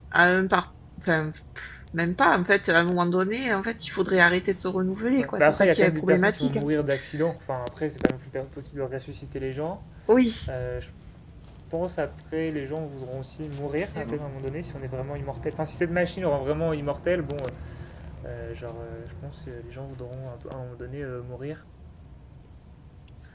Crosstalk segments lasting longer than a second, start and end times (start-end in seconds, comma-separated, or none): 5.2-6.7